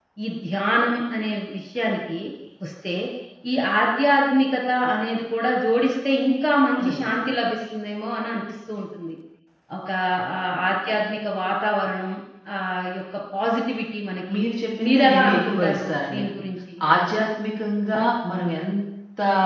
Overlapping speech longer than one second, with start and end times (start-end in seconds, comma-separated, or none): 14.9-16.2